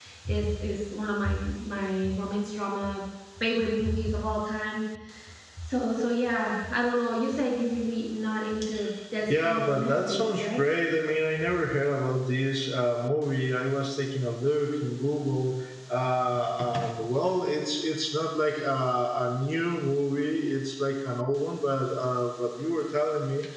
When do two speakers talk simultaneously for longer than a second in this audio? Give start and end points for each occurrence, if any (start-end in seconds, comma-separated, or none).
9.3-10.6